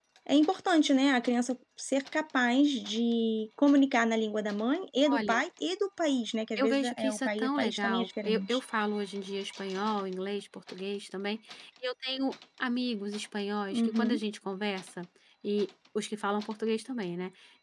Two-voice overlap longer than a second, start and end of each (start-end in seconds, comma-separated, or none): 6.6-8.6